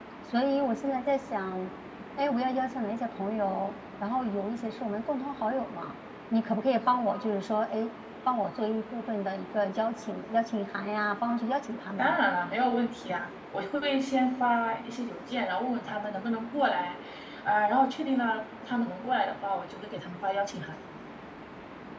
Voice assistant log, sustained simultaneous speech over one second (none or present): none